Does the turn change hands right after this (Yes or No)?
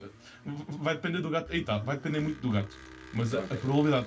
No